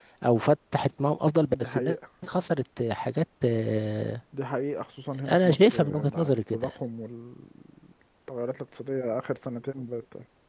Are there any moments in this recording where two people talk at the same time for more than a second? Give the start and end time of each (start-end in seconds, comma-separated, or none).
5.3-6.7